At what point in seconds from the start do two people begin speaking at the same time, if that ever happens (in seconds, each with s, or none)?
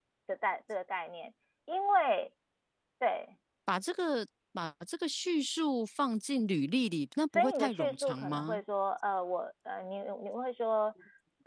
7.3 s